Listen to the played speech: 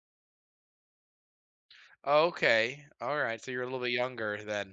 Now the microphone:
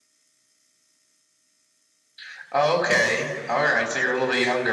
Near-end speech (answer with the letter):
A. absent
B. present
A